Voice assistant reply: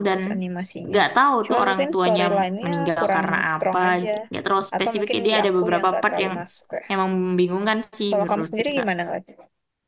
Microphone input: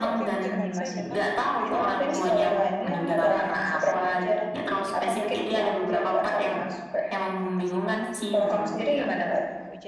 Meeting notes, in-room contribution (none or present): present